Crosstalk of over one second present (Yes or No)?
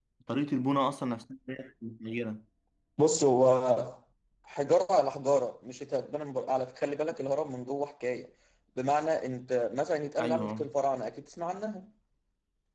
No